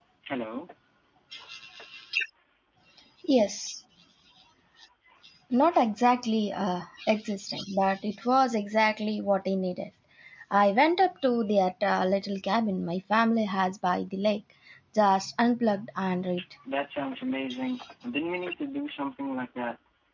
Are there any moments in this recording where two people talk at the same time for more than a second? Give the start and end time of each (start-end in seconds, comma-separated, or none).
none